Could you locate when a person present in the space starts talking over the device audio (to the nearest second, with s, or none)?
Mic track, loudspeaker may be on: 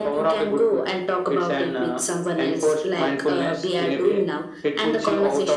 none